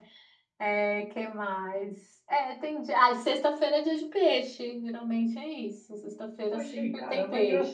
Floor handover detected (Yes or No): Yes